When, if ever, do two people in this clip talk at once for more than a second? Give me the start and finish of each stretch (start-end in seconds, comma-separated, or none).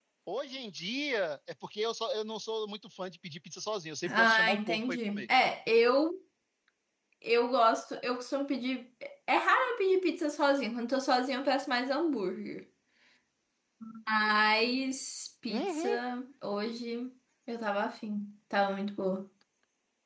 4.0-5.3